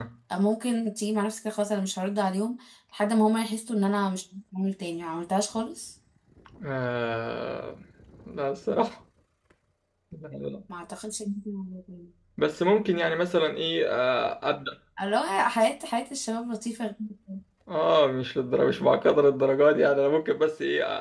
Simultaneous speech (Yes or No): No